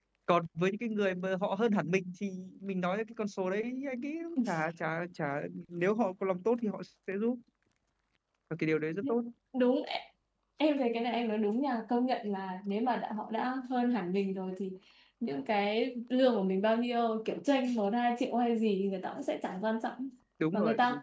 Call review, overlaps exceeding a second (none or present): none